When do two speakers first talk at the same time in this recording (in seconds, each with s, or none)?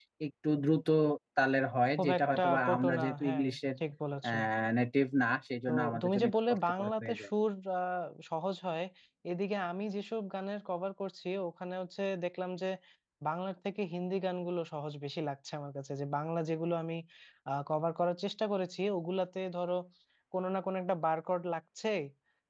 1.9 s